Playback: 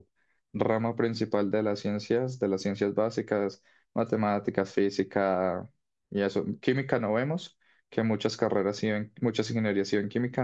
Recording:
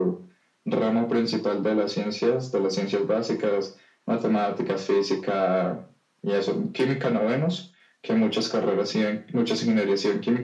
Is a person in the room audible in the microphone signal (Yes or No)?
No